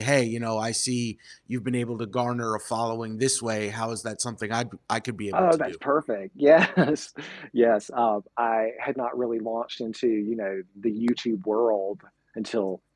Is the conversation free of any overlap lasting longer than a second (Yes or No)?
Yes